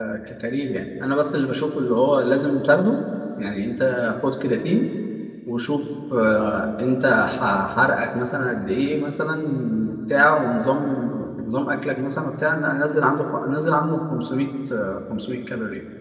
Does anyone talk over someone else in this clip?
No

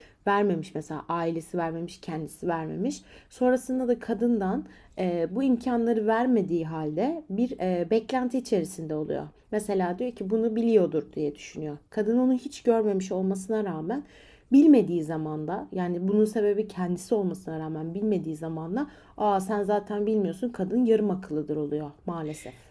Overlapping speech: No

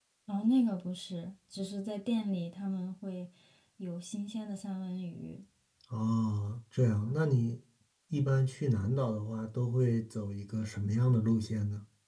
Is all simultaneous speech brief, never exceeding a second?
Yes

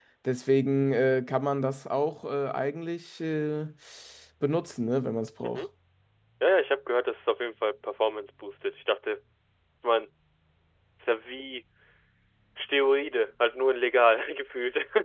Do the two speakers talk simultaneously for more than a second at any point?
No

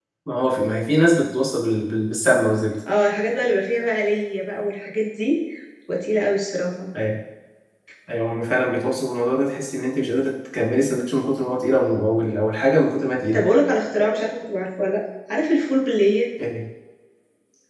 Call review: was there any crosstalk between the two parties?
No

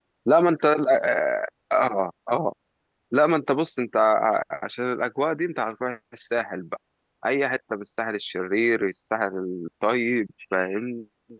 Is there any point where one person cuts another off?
No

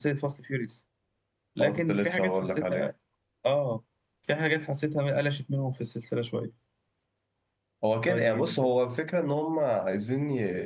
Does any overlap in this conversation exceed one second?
Yes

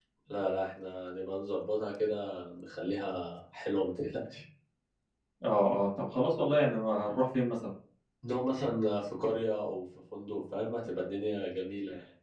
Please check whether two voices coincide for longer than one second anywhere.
No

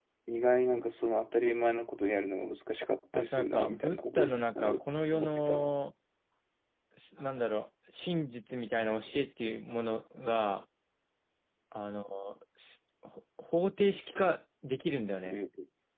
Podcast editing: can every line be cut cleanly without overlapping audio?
No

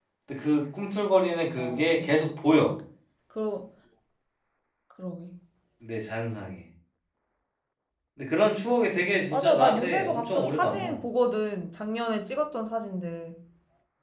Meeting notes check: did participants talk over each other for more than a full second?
Yes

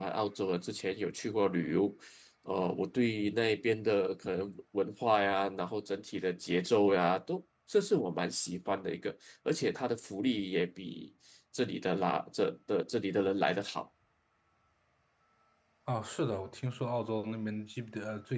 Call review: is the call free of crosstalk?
Yes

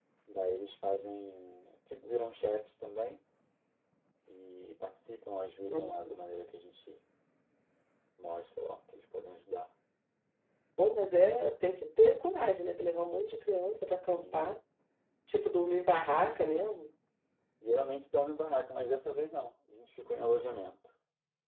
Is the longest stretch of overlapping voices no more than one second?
Yes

